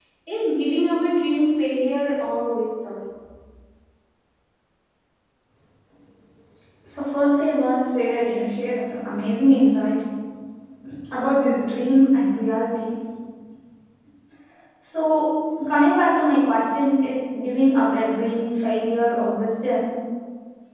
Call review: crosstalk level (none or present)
none